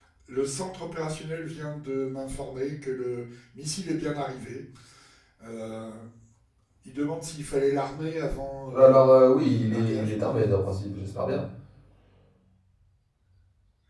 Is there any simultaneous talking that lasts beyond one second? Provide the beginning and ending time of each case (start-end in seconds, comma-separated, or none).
8.7-10.1